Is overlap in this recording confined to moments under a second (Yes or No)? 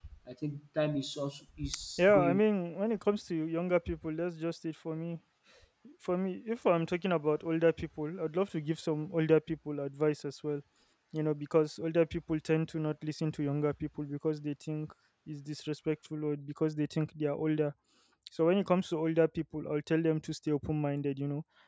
Yes